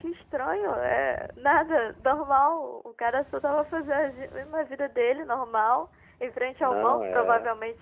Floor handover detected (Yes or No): No